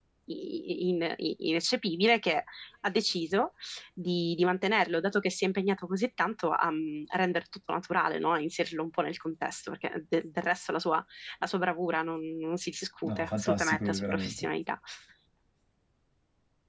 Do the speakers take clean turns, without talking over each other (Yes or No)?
No